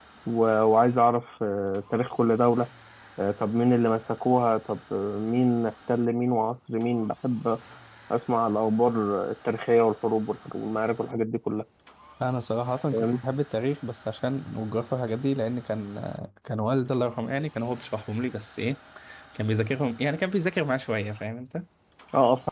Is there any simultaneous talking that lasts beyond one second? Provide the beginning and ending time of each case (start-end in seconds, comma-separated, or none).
none